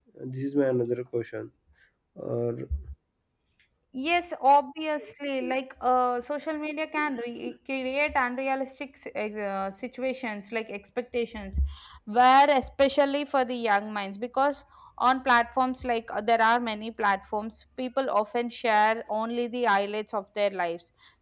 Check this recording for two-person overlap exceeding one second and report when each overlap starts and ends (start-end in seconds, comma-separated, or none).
none